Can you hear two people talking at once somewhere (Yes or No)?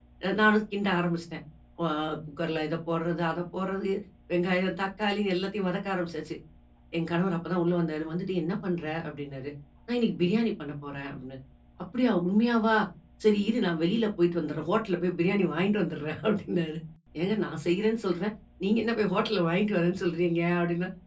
No